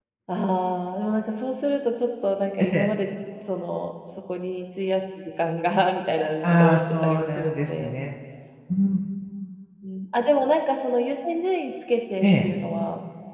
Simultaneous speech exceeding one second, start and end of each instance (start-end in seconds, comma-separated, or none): 6.4-7.9